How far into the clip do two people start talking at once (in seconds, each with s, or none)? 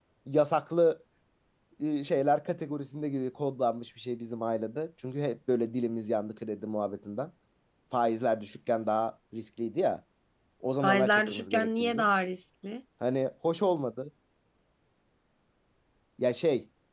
10.8 s